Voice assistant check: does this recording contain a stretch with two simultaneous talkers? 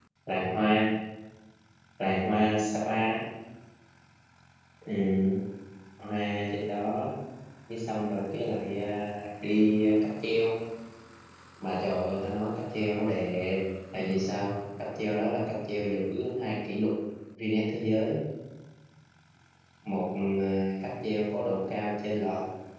No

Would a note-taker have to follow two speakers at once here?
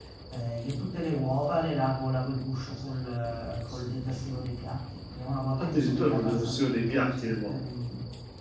Yes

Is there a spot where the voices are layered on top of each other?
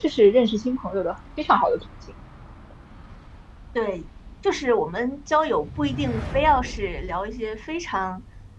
No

